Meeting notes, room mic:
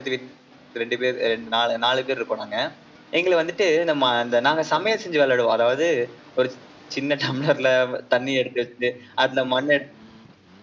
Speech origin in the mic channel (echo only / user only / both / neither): echo only